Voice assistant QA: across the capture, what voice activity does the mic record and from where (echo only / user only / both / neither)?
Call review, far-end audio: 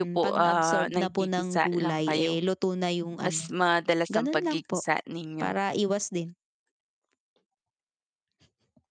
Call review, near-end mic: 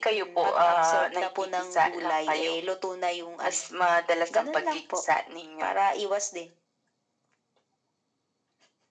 echo only